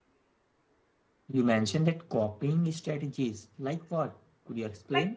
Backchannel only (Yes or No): No